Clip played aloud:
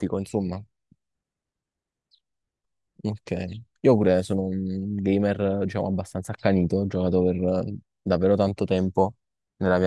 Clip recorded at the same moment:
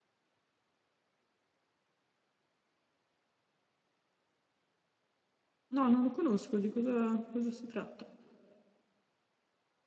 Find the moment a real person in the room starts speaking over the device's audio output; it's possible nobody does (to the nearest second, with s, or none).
6 s